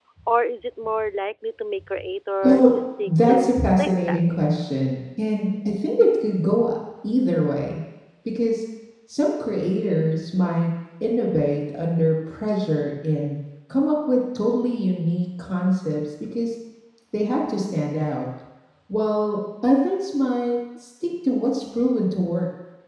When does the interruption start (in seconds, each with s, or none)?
2.4 s